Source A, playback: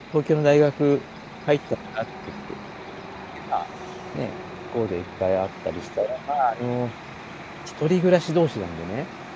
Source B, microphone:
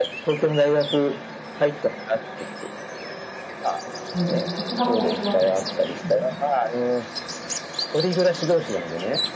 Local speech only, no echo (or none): うん、告白をするわけですか？うん。